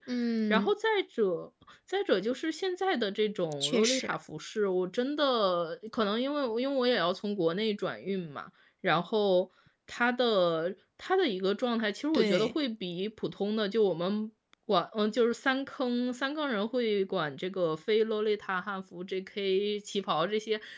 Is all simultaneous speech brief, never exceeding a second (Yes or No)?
Yes